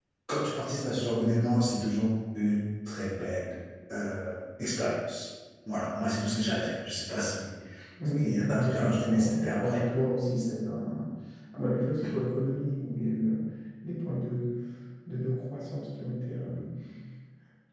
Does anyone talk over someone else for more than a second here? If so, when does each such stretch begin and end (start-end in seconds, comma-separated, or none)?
8.2-9.8